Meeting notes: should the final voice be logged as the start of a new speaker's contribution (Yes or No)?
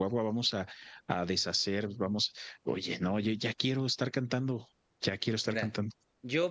Yes